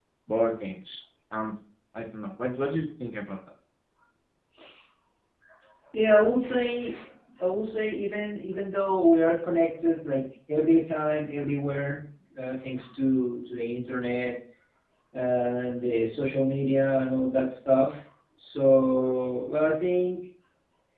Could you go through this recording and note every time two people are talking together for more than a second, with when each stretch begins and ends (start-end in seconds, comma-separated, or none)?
none